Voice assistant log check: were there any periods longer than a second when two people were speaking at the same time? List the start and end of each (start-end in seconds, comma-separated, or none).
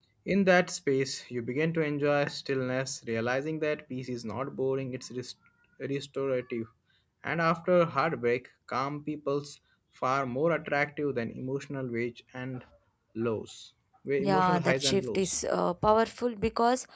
14.2-15.4